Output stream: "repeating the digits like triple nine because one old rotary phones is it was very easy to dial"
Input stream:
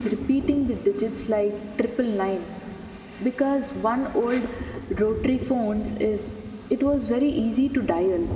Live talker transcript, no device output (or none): none